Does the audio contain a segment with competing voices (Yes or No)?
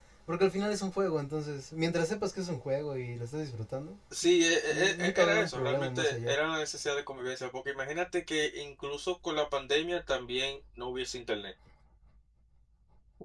Yes